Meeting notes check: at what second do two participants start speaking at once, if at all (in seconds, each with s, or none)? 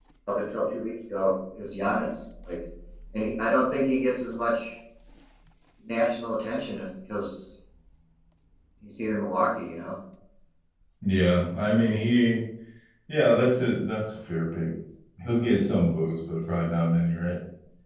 none